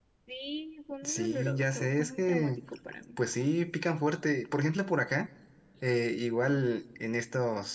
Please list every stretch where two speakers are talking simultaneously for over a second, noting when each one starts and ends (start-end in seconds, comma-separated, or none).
1.0-2.5